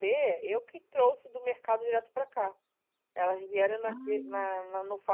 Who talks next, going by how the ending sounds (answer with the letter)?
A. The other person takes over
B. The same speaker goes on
B